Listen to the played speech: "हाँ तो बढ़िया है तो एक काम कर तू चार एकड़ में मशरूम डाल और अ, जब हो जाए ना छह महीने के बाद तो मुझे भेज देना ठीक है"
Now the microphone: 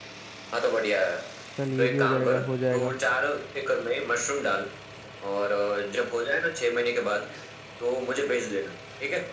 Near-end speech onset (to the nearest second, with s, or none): 2 s